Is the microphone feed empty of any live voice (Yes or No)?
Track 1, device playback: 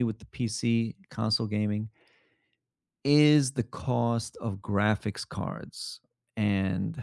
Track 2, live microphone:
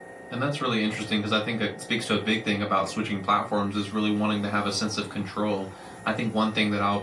No